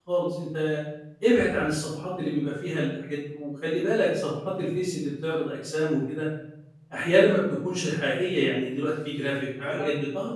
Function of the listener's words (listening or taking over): listening